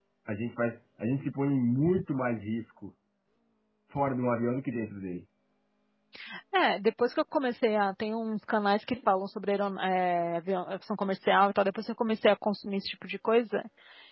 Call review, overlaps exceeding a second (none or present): none